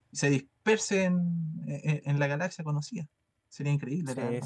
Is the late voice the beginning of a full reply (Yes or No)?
Yes